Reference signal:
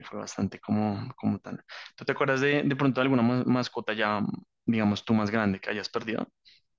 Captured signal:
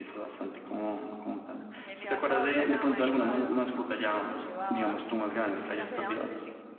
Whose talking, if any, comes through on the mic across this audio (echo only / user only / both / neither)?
both